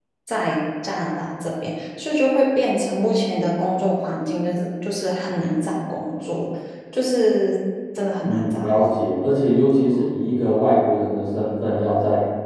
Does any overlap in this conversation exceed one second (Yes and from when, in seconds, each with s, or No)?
No